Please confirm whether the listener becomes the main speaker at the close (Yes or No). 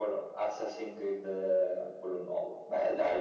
Yes